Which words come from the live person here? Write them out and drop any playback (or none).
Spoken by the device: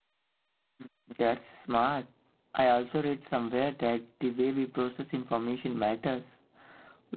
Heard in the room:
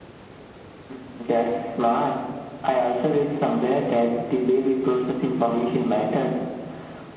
none